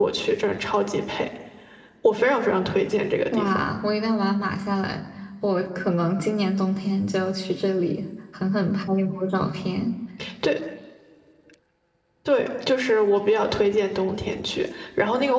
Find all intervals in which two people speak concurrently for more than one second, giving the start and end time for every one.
none

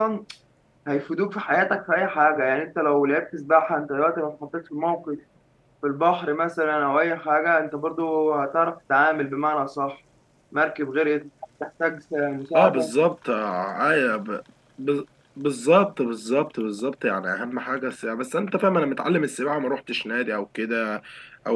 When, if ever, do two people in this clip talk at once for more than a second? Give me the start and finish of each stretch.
none

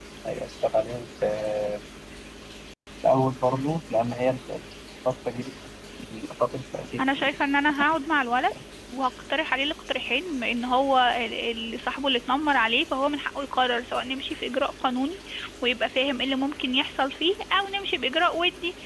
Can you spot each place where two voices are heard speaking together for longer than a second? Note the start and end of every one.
none

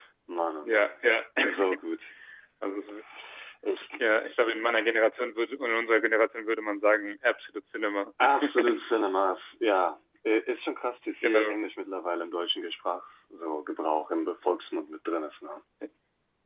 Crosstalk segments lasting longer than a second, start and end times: none

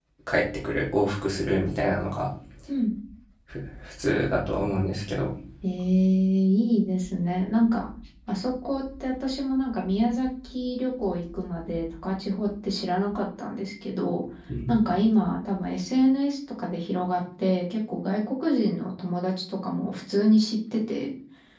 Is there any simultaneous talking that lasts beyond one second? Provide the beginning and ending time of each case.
none

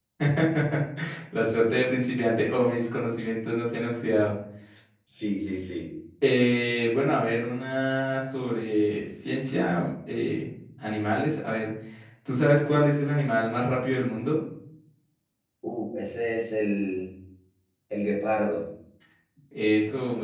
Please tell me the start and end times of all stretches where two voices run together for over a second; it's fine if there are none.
none

